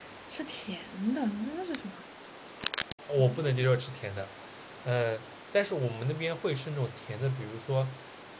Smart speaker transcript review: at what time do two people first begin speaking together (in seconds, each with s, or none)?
none